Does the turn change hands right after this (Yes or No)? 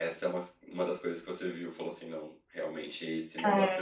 Yes